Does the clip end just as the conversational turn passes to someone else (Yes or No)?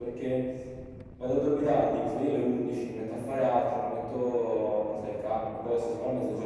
Yes